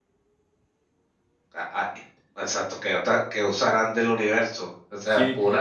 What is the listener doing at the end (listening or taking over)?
taking over